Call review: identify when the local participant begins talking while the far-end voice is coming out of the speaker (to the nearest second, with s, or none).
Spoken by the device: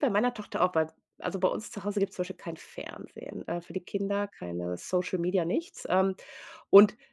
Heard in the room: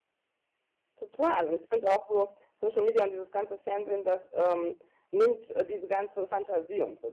1 s